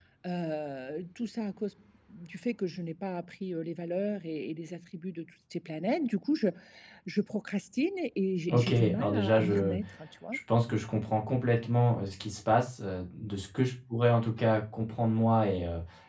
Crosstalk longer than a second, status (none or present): present